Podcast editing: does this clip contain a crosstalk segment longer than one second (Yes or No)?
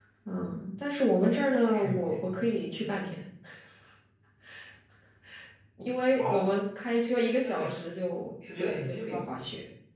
Yes